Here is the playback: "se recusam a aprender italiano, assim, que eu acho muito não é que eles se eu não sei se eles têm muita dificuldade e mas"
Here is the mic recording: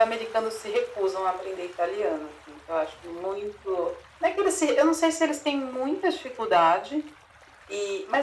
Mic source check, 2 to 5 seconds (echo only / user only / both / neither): echo only